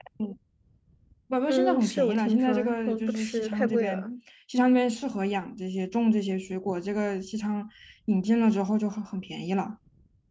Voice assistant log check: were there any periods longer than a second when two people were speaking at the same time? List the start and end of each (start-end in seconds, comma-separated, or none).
1.5-4.1